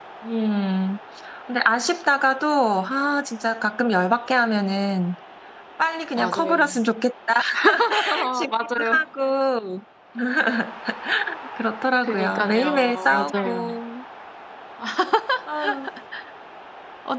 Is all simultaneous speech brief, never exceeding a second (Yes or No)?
No